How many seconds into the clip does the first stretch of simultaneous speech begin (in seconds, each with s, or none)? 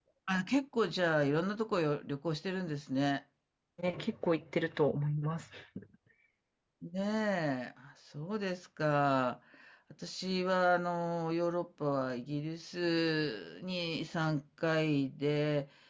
none